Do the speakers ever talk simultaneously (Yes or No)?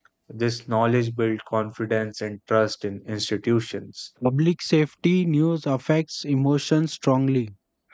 No